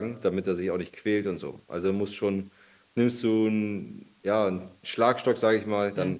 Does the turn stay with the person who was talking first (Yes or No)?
Yes